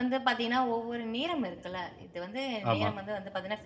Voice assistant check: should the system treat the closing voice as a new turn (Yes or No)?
No